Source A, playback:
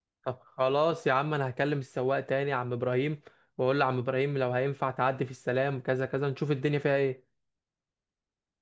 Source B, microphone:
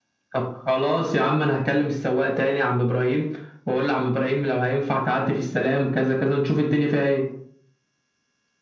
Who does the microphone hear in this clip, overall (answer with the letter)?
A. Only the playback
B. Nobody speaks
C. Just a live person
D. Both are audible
A